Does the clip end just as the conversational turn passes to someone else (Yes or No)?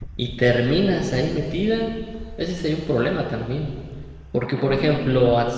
No